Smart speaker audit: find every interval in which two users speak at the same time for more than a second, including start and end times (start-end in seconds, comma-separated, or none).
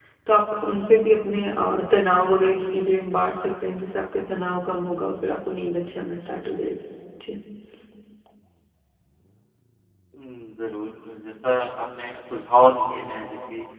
none